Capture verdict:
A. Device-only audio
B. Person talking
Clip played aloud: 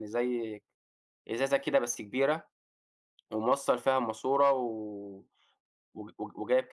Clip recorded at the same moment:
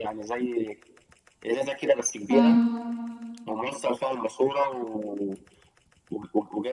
B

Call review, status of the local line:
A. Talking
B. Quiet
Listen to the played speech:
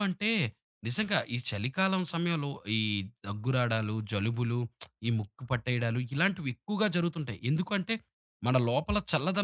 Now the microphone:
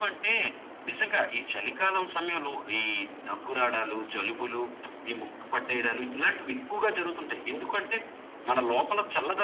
B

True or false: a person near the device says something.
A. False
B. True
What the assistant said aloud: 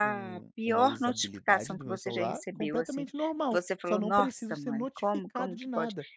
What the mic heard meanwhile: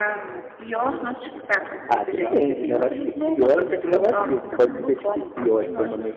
B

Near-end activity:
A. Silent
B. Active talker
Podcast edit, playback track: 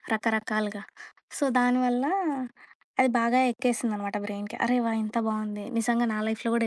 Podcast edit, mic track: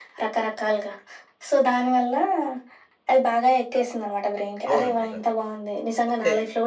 B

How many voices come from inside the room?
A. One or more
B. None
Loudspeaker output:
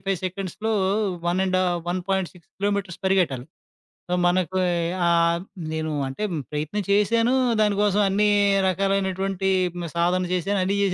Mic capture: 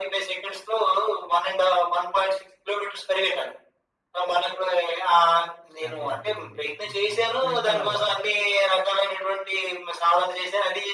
A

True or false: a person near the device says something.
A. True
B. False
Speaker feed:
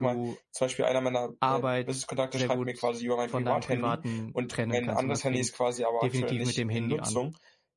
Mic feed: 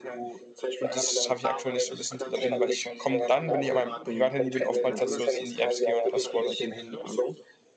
A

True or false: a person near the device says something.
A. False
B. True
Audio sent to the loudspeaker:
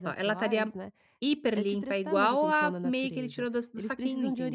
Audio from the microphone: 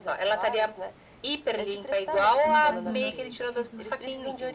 B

